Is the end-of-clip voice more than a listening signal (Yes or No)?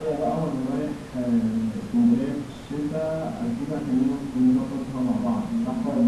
Yes